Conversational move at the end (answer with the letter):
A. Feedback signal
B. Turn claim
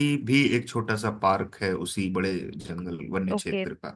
B